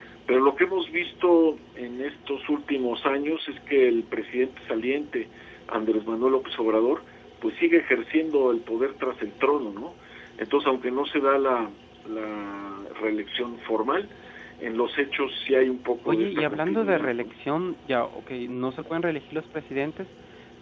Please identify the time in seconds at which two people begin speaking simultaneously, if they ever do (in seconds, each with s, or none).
16.1 s